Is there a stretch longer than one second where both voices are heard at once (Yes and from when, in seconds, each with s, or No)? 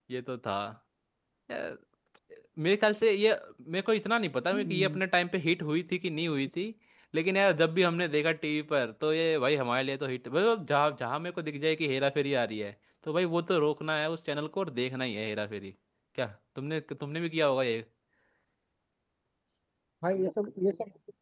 No